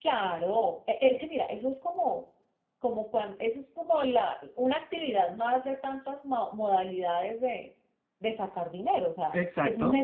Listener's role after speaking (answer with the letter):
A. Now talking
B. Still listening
B